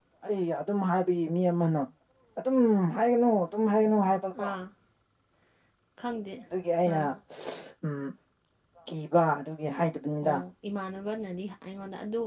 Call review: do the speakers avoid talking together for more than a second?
Yes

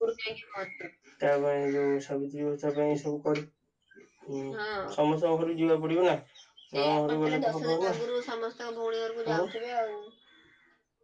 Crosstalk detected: Yes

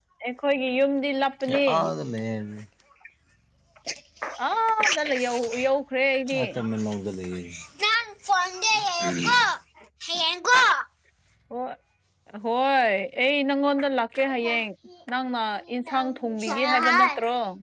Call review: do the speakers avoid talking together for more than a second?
No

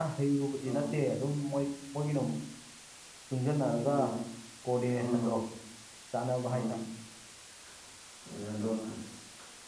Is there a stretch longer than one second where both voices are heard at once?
No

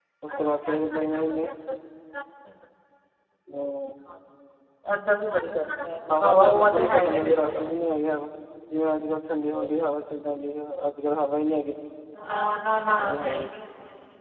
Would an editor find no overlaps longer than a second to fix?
No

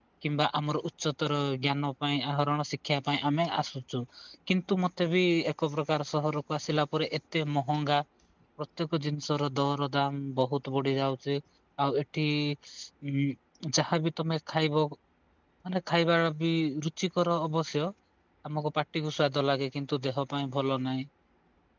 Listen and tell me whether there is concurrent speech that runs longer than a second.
No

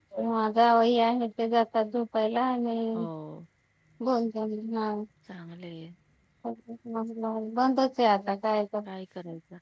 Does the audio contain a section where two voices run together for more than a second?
No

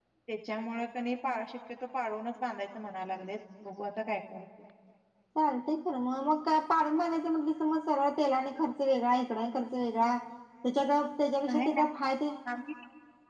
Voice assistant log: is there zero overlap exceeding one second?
Yes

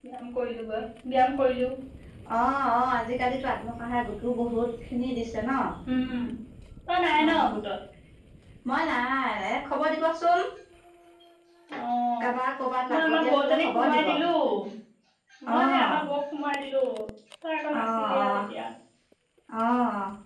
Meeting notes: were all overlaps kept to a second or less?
No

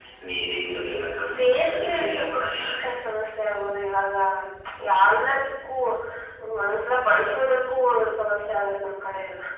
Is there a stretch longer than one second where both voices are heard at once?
Yes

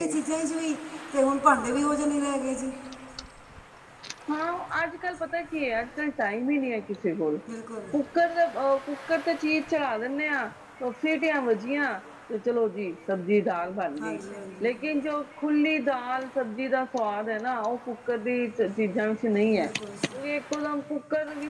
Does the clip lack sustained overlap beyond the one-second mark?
Yes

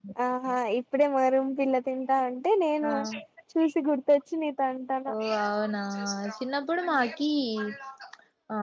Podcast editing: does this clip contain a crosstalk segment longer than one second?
No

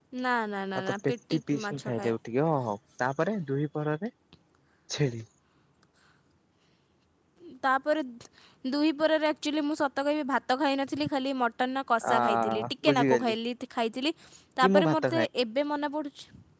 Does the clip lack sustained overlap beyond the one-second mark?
No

